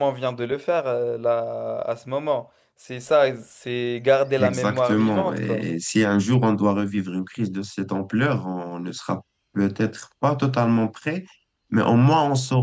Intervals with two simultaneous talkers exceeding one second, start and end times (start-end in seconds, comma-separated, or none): 4.4-5.6